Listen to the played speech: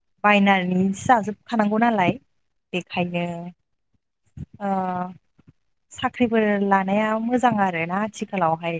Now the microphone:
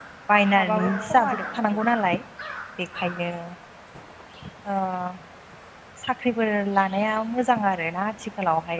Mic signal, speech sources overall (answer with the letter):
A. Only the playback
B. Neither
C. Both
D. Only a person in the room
C